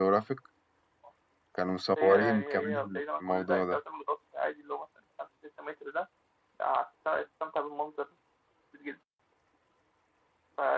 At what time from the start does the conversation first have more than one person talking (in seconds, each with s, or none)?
2.0 s